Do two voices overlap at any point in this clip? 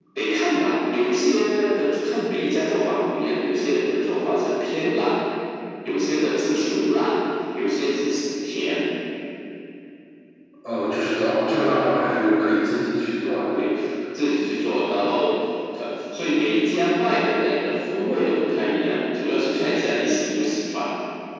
No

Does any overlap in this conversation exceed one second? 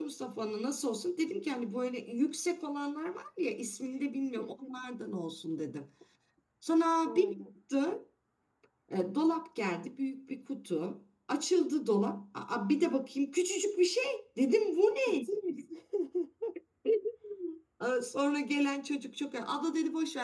No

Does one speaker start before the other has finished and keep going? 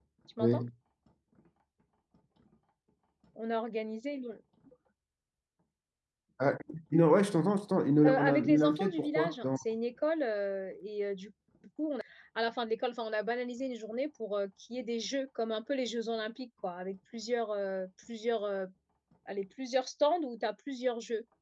Yes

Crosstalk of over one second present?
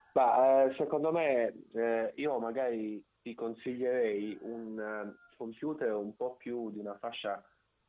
No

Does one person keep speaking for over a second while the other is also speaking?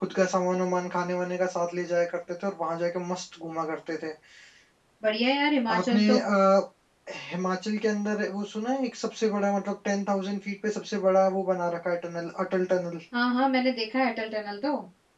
No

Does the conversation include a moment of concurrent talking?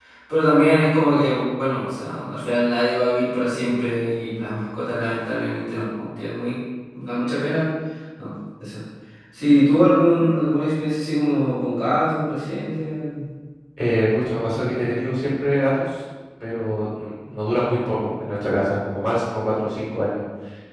No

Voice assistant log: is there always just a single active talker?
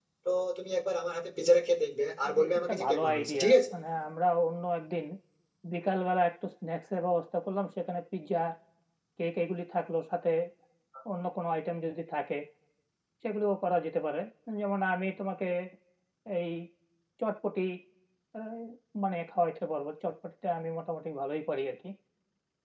No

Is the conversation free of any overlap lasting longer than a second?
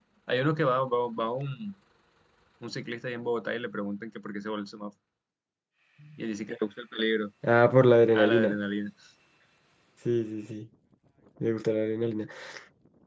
Yes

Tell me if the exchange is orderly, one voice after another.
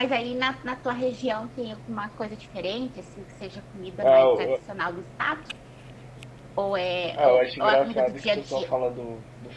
No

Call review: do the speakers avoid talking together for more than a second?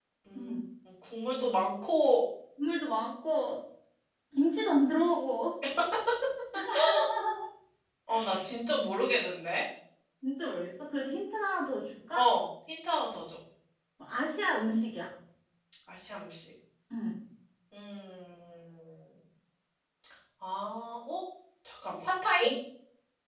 Yes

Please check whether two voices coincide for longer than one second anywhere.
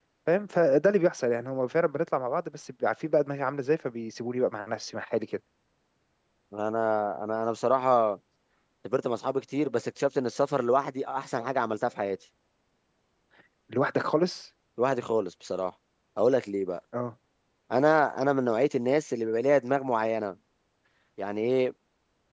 No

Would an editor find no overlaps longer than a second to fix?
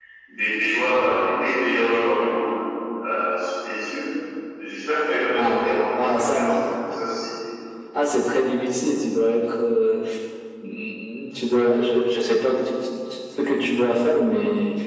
No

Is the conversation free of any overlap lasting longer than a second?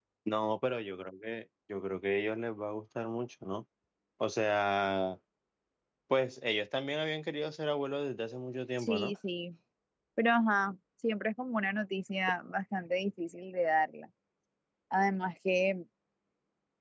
Yes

